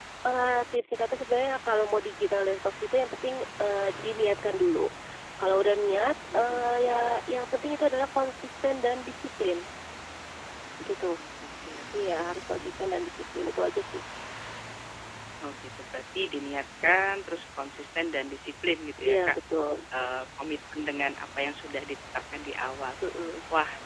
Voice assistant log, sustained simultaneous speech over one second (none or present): none